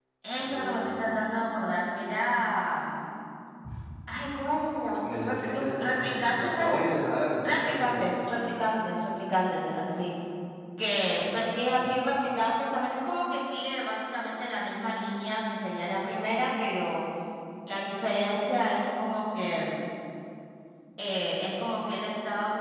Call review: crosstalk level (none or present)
present